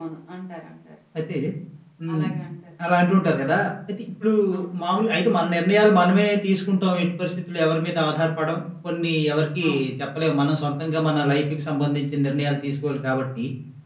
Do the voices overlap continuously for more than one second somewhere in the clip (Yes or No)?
No